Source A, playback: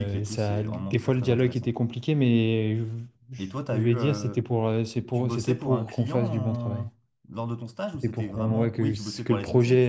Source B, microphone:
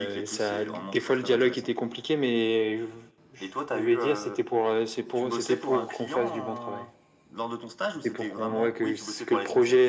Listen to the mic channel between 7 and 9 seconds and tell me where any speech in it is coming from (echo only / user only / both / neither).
echo only